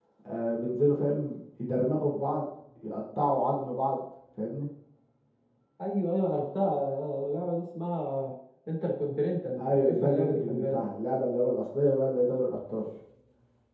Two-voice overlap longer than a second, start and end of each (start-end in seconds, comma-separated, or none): 9.6-10.8